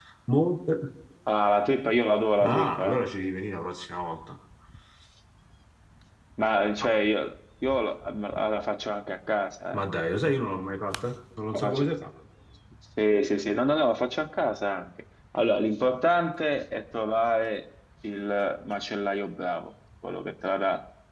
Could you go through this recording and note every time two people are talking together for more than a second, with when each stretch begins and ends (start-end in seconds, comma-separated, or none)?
none